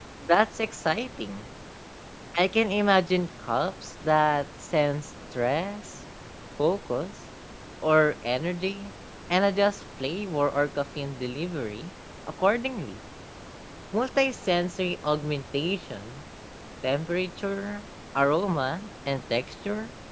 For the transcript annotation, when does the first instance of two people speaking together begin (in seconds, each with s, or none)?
none